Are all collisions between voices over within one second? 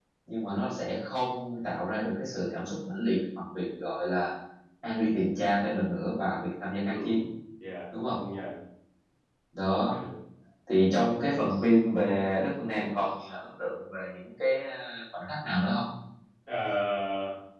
Yes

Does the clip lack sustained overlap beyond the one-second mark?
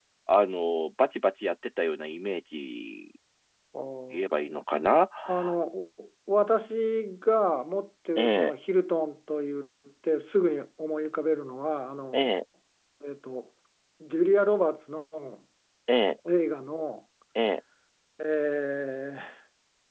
Yes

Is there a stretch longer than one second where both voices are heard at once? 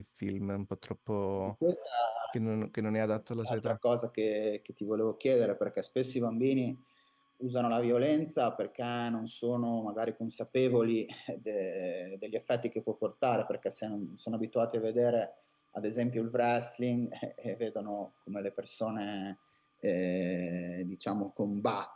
No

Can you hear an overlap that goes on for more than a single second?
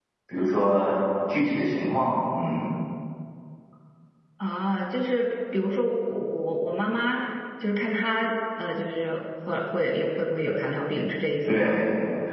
No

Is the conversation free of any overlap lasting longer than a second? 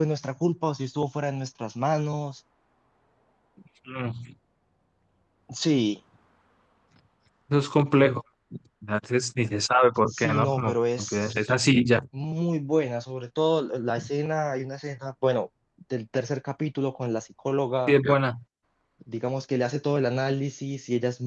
No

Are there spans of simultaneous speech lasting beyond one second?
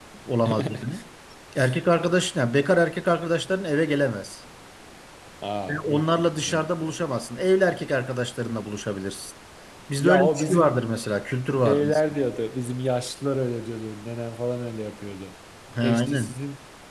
Yes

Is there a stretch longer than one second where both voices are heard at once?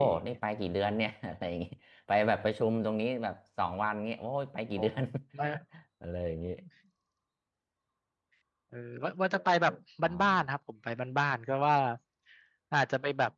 No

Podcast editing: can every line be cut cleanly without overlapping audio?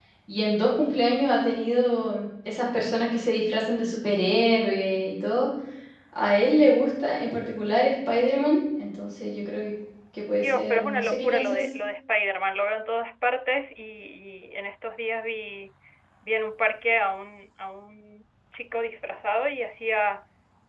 No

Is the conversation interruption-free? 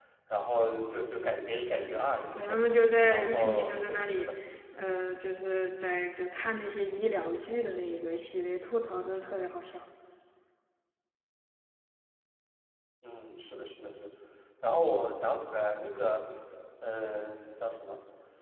No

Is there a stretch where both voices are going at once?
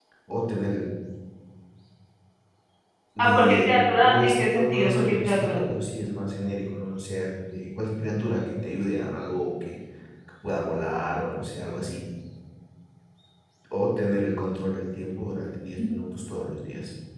Yes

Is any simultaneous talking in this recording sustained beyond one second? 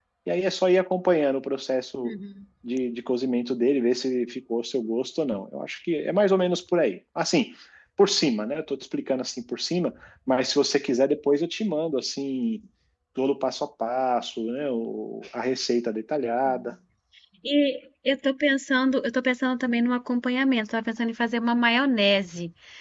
No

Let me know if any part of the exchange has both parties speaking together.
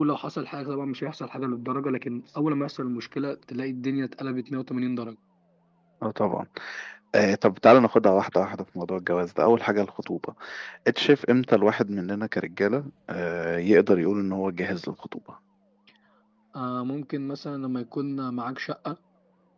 No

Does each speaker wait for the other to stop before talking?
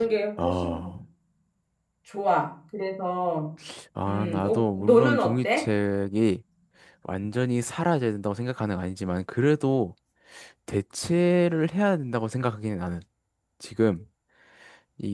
No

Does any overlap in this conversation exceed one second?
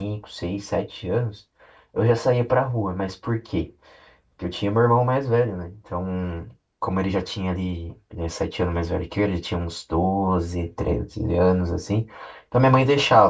No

